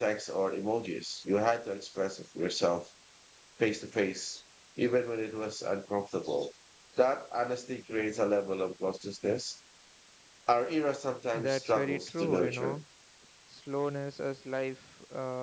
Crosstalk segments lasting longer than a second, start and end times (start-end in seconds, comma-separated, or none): 11.3-12.8